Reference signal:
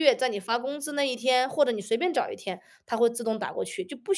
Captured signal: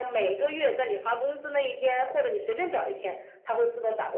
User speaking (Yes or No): No